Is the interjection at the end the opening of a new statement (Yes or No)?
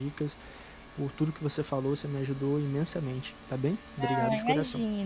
Yes